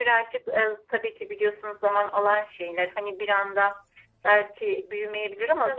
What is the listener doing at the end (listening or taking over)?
listening